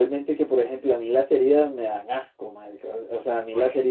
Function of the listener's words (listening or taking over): listening